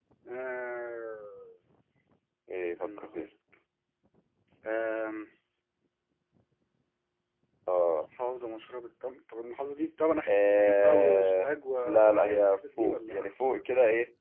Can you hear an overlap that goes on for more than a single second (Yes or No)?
Yes